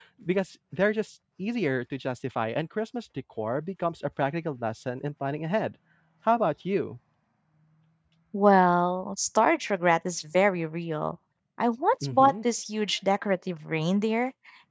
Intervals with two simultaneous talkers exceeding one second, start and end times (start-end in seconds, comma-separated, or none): none